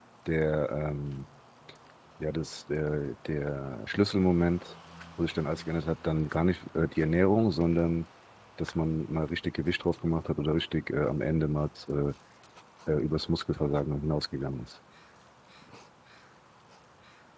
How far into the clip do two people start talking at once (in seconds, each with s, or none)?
none